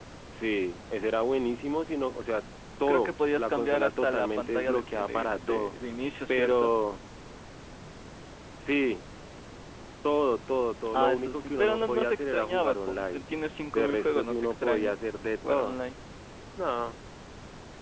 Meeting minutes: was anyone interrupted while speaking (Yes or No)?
Yes